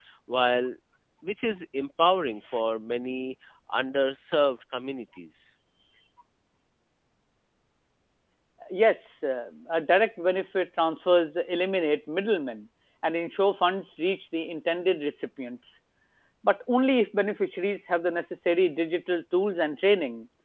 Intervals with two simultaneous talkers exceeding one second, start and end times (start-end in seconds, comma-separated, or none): none